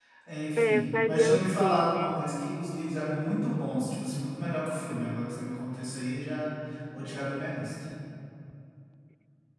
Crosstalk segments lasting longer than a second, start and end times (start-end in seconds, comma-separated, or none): 0.6-2.2